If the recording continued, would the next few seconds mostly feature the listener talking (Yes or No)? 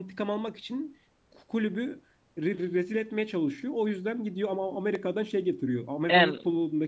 No